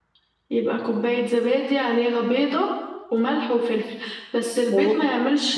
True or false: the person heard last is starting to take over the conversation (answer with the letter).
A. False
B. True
A